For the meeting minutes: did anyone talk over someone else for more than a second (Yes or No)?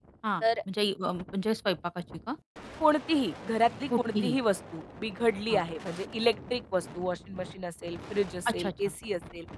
No